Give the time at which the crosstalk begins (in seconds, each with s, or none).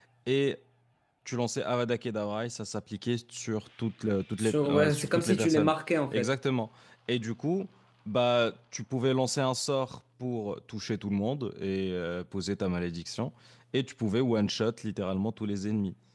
4.4 s